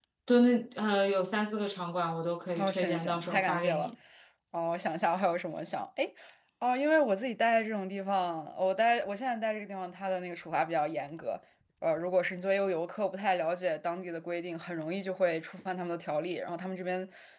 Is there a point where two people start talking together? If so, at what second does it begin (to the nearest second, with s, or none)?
3 s